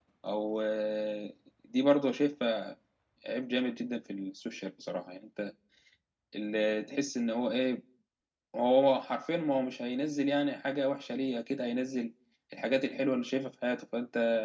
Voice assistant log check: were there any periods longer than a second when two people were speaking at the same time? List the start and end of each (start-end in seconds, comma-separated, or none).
none